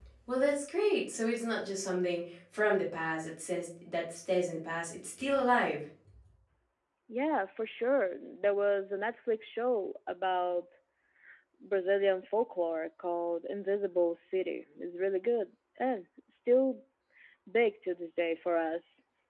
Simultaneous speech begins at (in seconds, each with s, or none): none